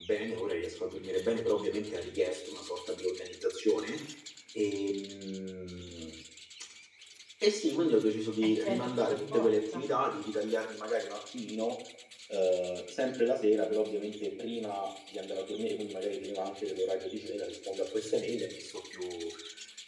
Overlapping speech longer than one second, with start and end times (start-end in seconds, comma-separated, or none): 8.4-9.8